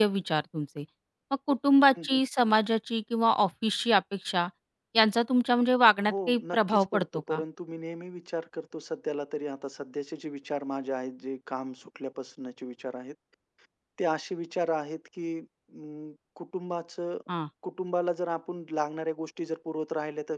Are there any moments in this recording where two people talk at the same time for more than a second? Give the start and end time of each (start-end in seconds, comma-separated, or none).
6.1-7.4